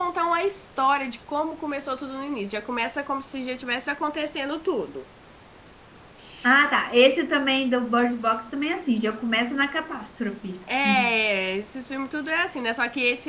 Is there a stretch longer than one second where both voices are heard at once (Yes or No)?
No